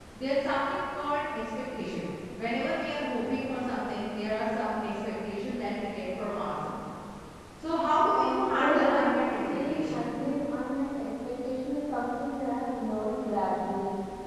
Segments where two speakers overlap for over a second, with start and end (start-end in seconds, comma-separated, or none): 8.1-10.0